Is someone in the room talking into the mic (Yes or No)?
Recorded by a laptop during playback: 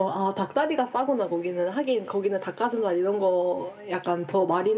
No